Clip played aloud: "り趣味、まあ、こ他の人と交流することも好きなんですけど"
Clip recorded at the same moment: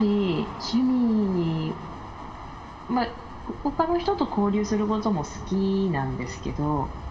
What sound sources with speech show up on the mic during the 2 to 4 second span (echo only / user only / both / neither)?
echo only